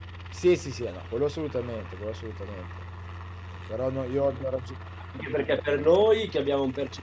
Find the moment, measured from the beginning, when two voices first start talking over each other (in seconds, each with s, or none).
none